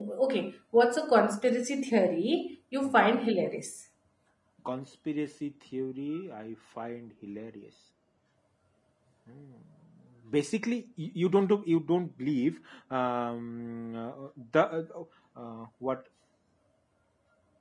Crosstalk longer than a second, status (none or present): none